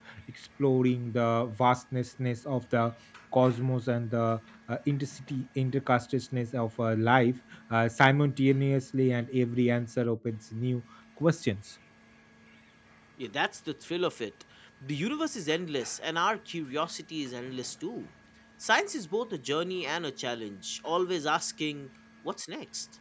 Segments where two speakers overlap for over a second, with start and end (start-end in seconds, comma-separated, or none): none